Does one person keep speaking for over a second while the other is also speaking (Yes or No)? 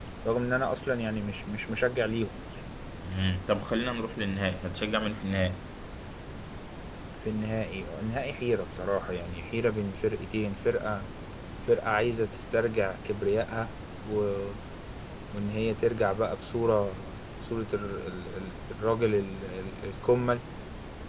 No